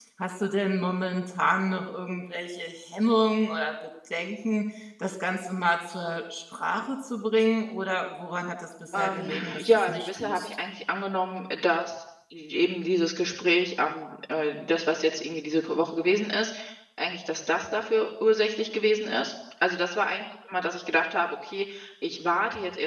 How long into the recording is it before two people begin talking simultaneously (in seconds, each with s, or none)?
8.9 s